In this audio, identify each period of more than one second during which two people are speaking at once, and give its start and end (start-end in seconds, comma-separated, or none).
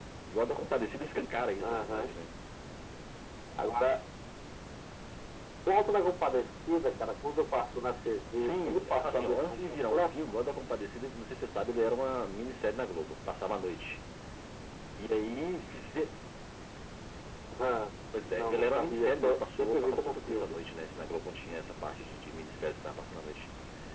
8.3-10.0, 18.3-20.6